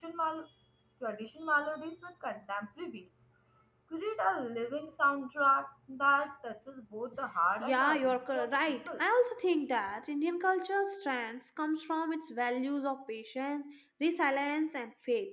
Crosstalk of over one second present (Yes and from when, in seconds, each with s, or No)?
Yes, from 7.6 s